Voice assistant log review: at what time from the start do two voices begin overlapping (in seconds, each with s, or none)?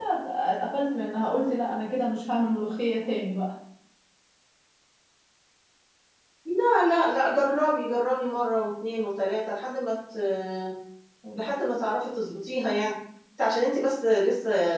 none